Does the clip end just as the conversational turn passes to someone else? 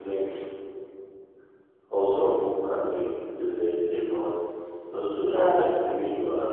No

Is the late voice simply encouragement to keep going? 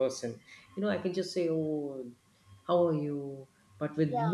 Yes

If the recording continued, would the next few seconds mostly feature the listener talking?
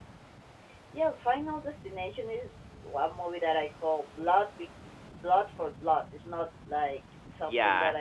No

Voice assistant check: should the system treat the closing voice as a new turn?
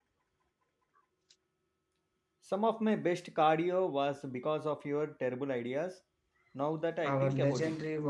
Yes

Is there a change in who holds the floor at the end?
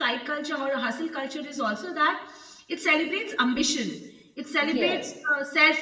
No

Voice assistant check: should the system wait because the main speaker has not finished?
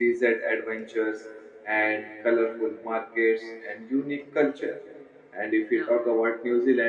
Yes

